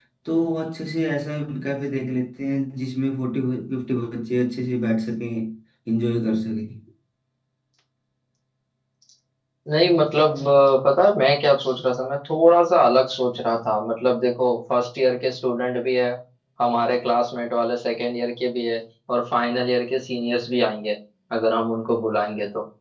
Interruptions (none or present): none